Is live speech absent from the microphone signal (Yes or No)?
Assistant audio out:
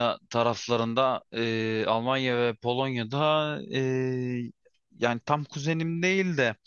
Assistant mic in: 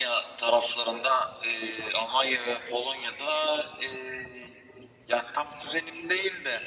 Yes